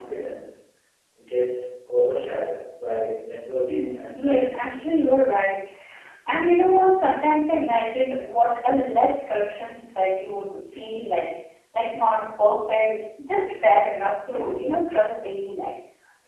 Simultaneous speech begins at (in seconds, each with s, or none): 3.7 s